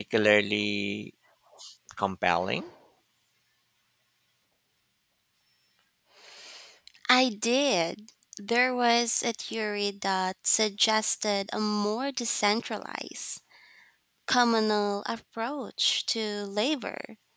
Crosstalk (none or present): none